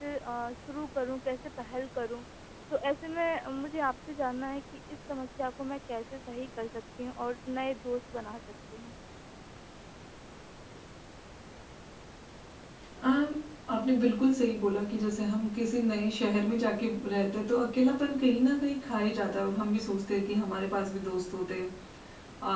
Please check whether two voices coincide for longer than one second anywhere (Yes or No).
No